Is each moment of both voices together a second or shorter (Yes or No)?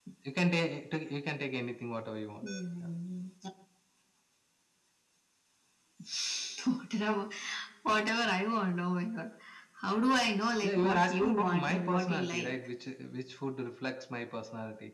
No